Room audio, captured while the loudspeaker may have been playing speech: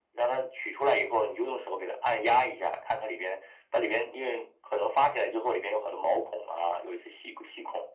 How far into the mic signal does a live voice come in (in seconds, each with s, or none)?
none